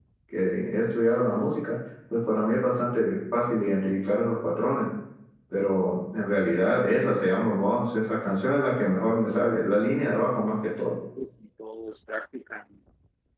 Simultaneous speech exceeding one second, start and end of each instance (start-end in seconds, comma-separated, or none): none